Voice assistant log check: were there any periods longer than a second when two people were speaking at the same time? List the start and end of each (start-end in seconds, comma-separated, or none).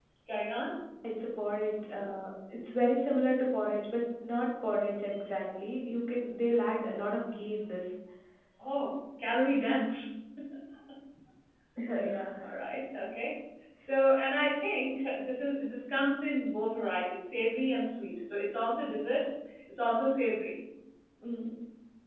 none